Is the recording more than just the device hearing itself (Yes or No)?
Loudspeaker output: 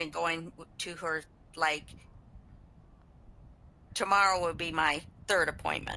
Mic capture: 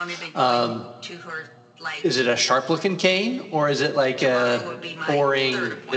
Yes